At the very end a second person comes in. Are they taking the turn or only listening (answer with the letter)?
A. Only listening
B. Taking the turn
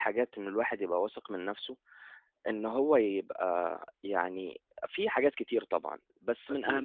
A